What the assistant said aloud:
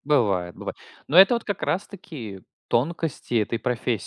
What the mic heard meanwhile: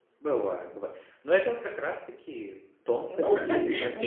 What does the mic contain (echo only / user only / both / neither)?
both